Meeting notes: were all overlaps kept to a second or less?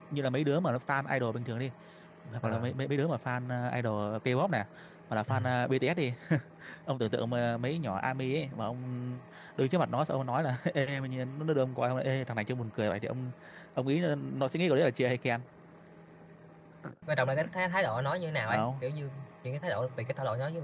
Yes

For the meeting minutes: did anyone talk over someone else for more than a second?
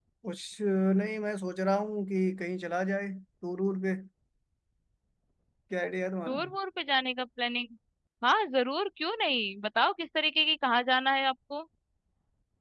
No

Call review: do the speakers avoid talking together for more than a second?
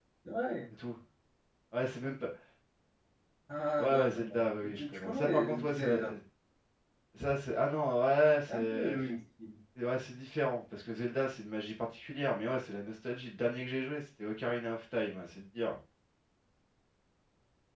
No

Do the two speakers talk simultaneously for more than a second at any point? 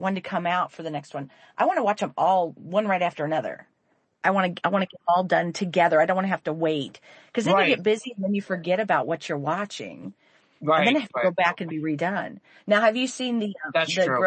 No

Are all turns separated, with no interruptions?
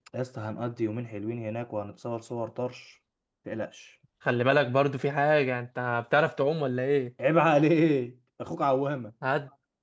Yes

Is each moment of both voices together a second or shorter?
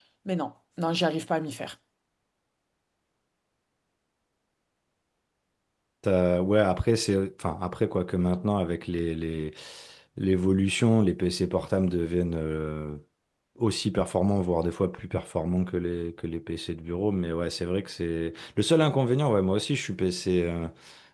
Yes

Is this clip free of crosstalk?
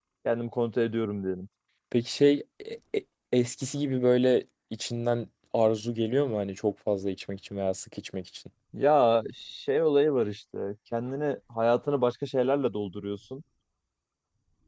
Yes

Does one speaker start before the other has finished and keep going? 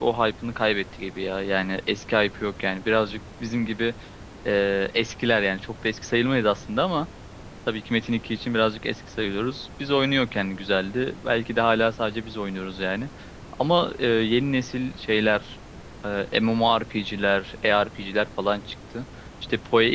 No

